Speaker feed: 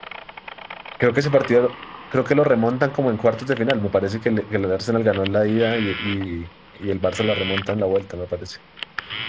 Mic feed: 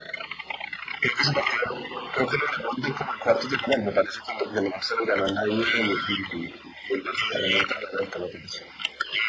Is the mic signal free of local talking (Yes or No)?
Yes